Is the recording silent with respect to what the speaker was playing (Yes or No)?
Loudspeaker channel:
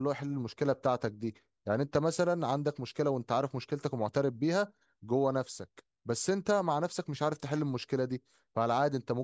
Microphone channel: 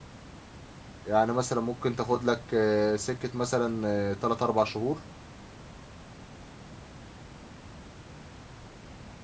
Yes